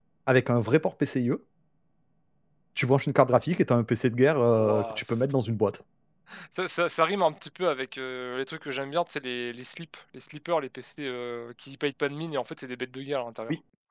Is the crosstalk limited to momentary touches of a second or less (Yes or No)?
Yes